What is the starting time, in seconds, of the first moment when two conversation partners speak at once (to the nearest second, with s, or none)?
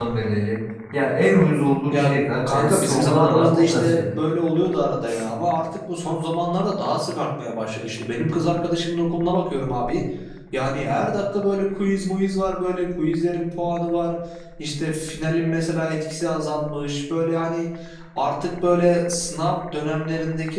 2 s